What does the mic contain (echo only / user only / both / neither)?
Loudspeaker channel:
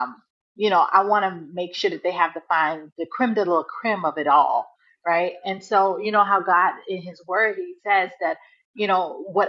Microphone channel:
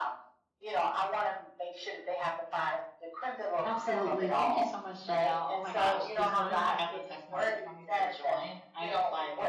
both